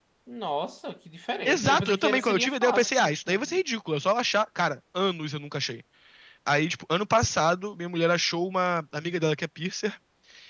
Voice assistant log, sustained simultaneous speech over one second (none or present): present